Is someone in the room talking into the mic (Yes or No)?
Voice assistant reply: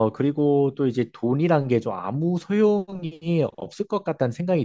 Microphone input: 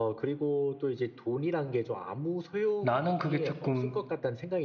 Yes